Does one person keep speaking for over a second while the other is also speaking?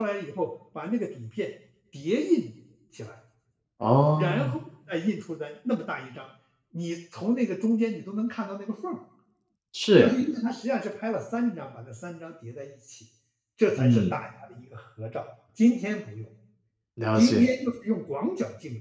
No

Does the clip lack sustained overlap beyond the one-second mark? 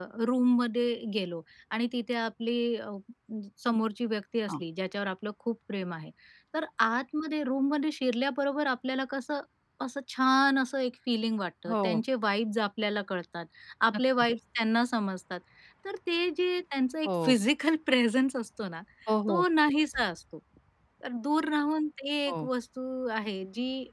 Yes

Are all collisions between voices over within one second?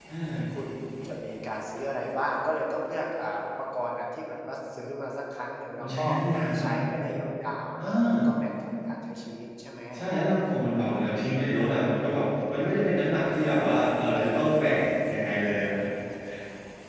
Yes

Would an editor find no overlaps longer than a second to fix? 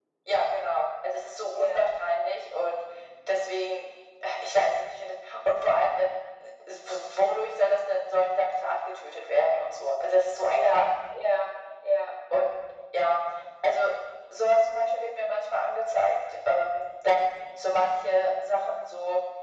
Yes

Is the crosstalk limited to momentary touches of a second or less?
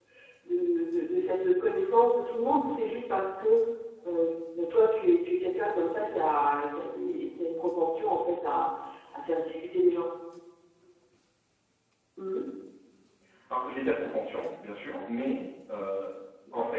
Yes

